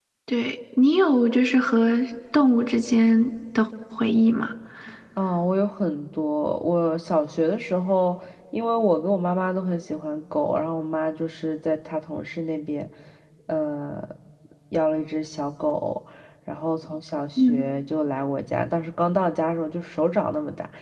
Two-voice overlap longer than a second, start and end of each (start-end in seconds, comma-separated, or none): none